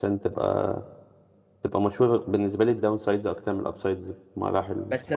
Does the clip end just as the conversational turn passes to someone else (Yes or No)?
Yes